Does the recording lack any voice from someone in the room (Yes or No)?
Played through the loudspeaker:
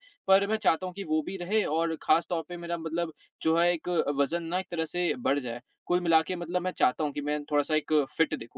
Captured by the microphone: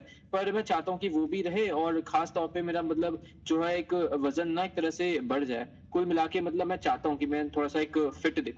Yes